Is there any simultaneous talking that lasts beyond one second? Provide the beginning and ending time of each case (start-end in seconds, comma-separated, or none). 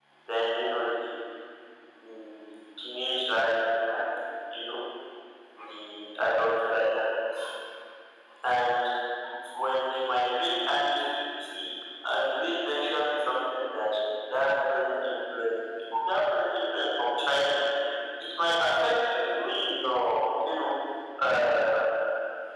none